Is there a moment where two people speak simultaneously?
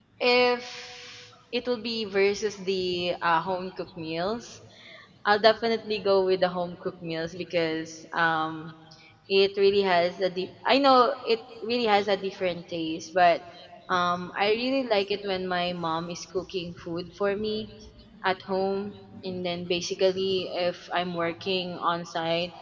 No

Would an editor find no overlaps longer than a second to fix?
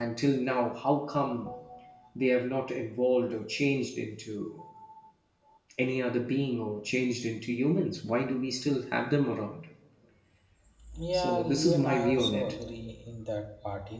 No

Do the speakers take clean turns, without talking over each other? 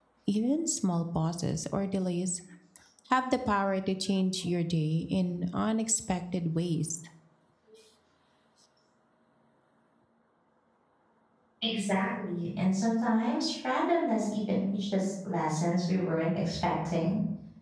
Yes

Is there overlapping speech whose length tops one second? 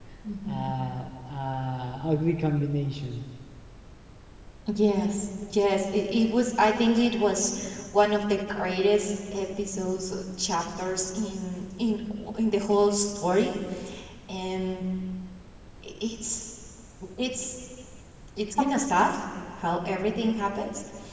No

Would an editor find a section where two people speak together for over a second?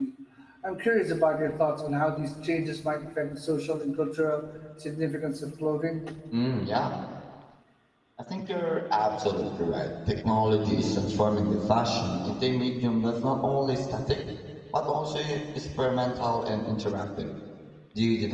No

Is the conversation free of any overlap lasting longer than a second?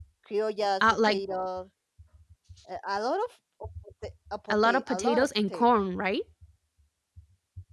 No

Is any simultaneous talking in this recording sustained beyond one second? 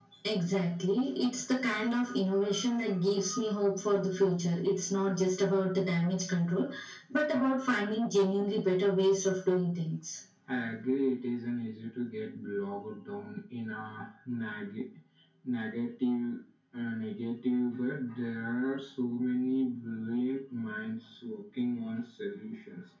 No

